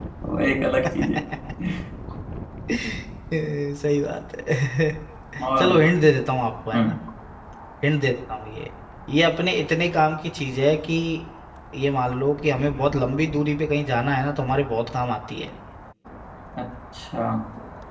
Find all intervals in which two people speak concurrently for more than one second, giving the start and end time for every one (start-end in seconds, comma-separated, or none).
none